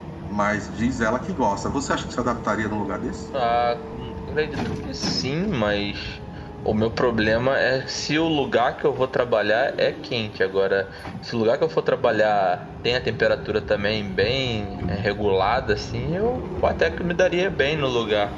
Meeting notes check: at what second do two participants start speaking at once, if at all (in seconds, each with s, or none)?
none